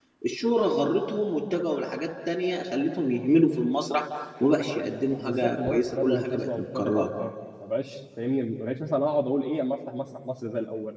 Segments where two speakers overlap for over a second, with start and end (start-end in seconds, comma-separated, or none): 5.2-7.0